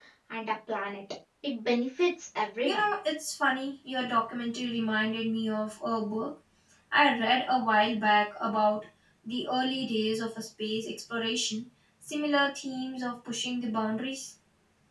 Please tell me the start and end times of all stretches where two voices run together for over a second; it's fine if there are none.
none

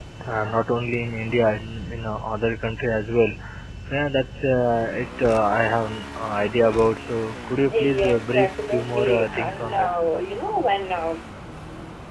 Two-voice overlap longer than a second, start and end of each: 7.7-9.9

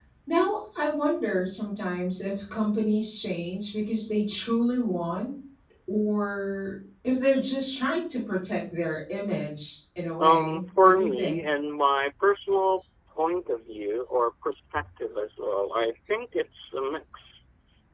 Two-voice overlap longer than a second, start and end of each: 10.2-11.4

